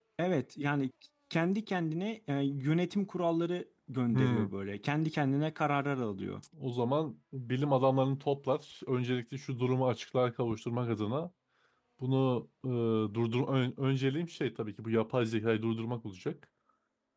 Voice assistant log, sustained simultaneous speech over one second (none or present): none